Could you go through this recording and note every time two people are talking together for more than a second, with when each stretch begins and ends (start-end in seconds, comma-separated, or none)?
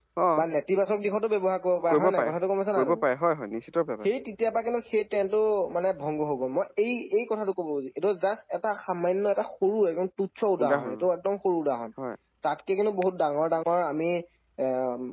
none